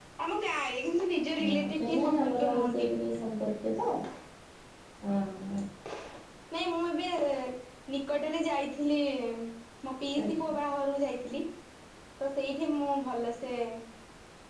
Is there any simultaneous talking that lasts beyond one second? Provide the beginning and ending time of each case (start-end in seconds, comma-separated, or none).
1.4-2.9